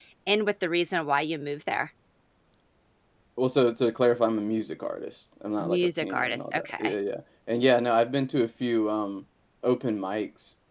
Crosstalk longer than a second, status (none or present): present